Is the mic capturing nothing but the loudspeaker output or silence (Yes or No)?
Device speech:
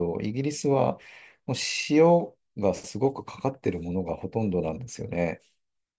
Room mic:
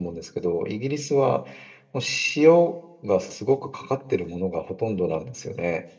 Yes